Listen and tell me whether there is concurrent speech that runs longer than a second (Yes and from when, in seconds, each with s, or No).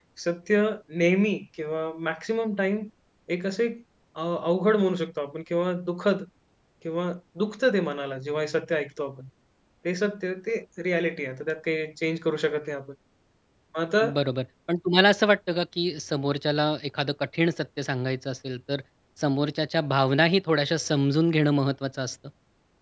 No